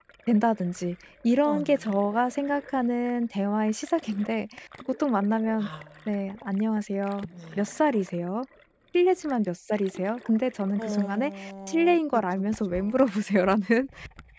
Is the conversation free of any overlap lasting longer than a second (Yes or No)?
No